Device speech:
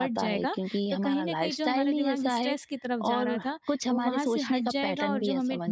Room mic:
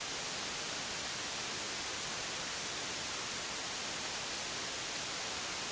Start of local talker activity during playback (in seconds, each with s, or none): none